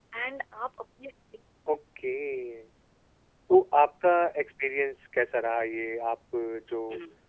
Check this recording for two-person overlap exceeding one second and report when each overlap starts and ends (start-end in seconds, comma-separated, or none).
none